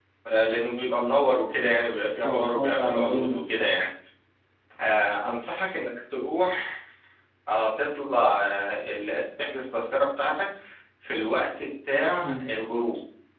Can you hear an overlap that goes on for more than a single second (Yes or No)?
Yes